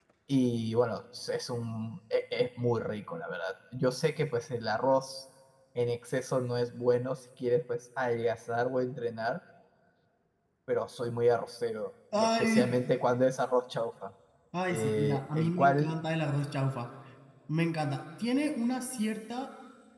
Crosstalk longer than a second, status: present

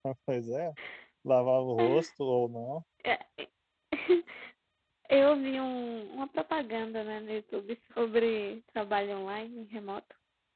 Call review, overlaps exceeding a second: none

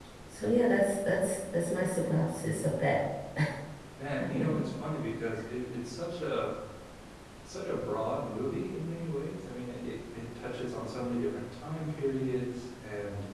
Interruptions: none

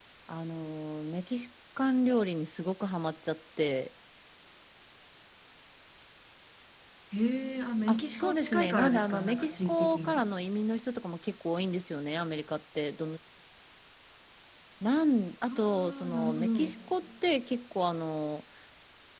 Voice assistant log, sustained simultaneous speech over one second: present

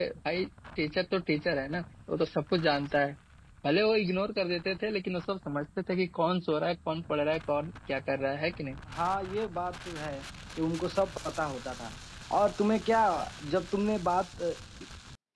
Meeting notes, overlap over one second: none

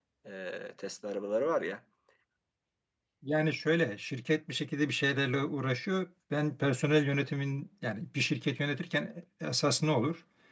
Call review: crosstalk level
none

